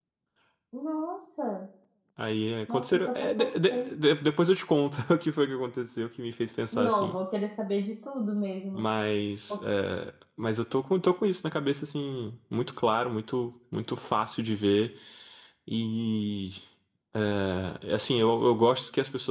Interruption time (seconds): 2.7 s

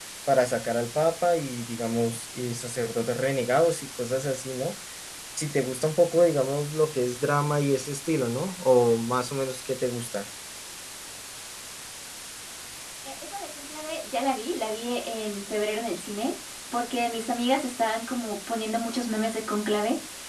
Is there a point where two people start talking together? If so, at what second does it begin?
none

